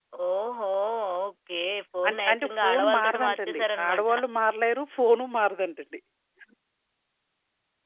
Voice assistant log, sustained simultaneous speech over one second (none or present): present